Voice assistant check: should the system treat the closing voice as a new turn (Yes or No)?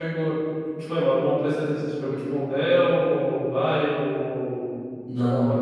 Yes